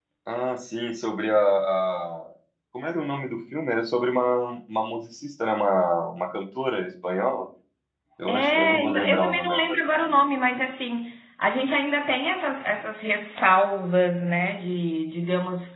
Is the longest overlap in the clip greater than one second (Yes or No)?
Yes